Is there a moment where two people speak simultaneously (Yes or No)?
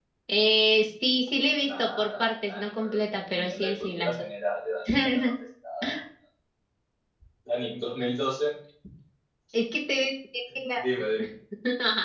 Yes